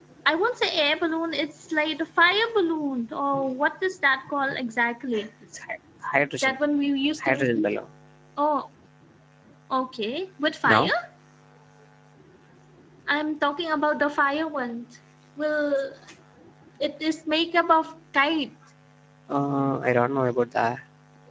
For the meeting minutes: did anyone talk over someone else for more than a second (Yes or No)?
No